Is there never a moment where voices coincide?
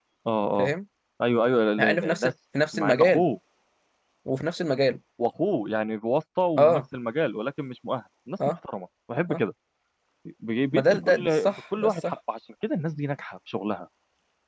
No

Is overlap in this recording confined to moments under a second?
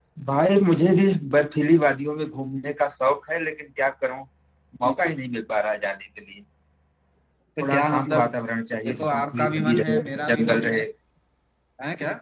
No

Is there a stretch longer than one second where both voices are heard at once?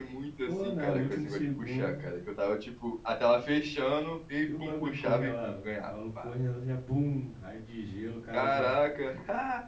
Yes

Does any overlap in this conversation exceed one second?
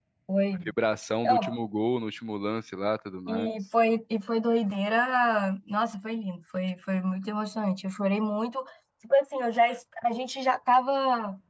No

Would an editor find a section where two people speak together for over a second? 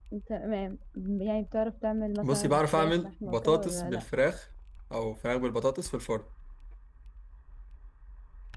Yes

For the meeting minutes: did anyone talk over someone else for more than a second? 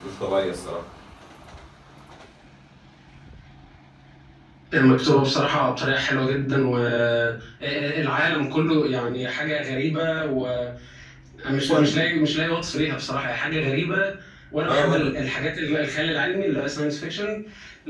No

